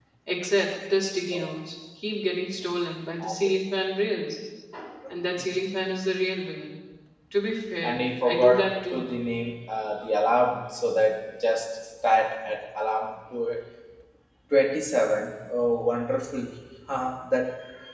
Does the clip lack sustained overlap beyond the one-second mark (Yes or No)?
No